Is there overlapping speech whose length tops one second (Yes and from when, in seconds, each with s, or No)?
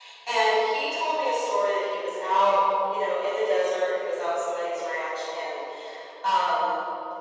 No